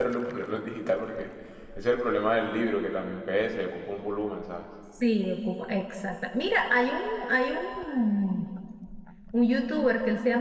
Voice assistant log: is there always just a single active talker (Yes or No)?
Yes